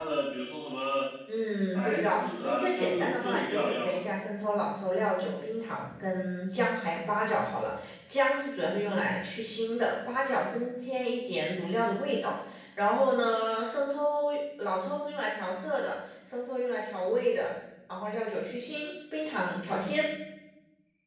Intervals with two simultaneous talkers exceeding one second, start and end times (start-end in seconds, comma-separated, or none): 1.7-4.0